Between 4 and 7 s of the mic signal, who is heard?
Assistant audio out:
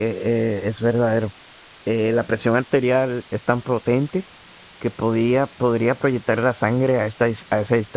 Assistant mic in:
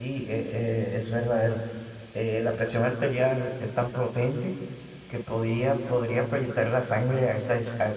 echo only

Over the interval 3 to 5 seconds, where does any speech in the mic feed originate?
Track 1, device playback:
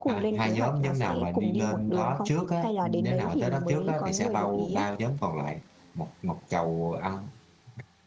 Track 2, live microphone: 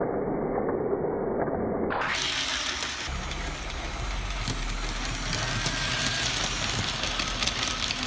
neither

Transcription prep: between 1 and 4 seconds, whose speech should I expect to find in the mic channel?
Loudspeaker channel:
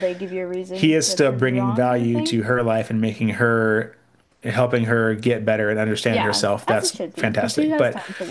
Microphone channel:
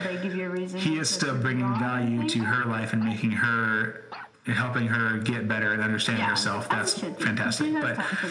echo only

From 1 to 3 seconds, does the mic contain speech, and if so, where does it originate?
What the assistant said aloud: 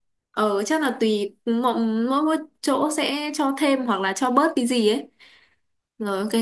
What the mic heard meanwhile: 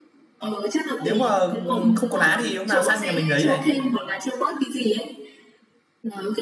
both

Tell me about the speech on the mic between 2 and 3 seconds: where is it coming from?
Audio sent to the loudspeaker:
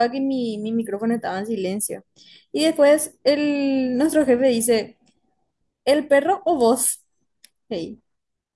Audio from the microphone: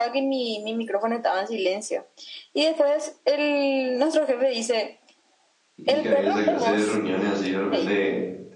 echo only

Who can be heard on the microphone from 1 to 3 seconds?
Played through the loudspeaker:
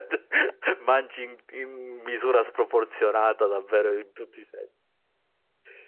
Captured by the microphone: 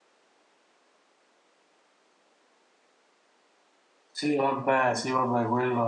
neither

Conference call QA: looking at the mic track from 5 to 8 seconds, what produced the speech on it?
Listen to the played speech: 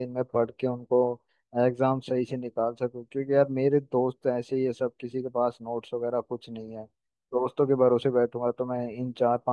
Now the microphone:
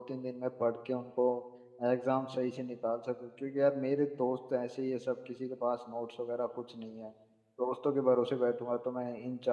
echo only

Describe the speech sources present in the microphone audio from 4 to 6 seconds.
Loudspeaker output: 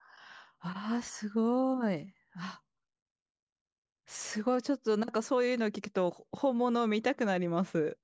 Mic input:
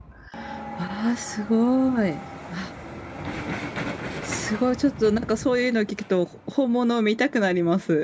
echo only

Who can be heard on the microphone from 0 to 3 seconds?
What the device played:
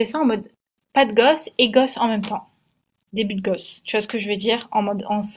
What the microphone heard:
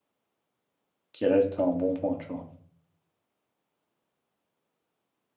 user only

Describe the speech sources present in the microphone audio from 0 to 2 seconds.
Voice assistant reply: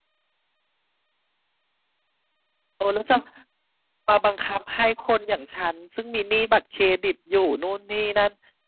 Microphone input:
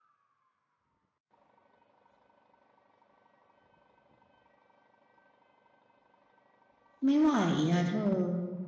neither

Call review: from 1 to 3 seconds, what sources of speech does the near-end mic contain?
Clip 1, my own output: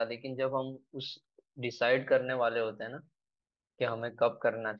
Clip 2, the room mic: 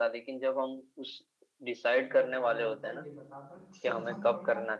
both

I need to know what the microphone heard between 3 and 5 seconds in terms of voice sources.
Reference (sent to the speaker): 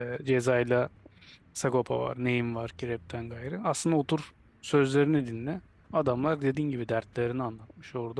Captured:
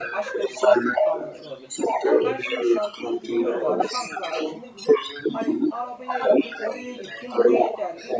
both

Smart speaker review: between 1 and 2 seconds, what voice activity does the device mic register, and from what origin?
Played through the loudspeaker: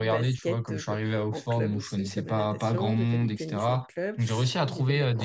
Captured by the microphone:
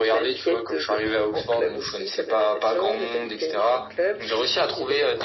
echo only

